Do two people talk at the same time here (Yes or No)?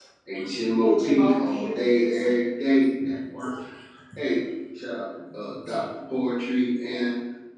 Yes